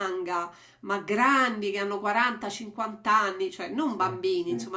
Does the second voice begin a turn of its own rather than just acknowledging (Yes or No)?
No